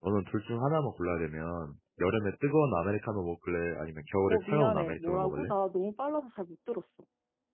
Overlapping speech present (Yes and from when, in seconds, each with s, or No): Yes, from 4.3 s